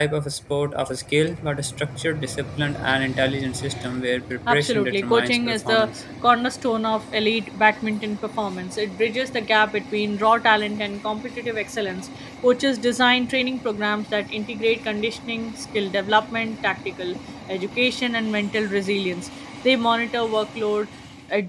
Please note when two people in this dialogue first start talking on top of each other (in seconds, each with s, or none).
4.5 s